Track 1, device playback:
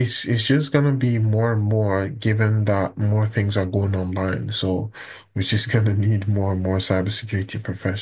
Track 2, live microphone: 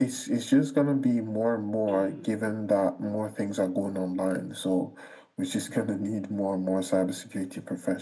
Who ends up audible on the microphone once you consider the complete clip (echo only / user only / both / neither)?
both